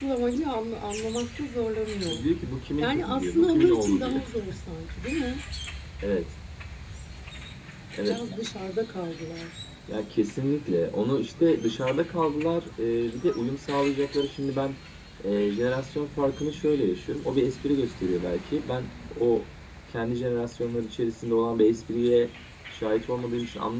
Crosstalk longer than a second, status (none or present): present